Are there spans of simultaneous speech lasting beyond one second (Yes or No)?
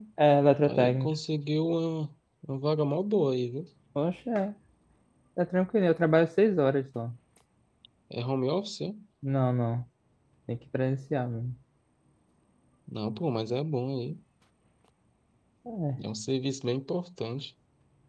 No